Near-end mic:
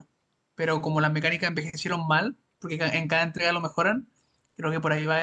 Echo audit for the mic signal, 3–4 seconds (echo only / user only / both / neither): user only